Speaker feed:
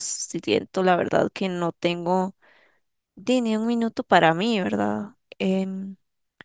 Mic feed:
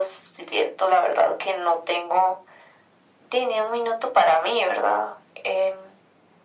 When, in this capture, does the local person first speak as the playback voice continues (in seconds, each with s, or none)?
none